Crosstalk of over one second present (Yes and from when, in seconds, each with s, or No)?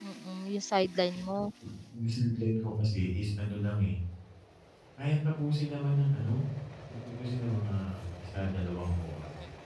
No